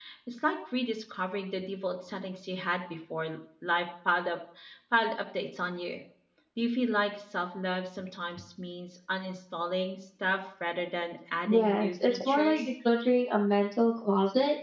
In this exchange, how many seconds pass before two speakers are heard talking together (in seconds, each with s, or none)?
11.5 s